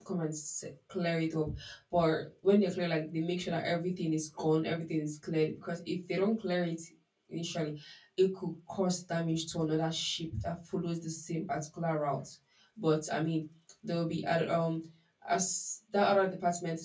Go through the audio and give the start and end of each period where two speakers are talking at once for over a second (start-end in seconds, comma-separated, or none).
none